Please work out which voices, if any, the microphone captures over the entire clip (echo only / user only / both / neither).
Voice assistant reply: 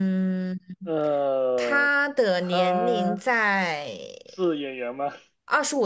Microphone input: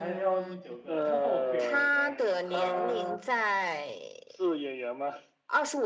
both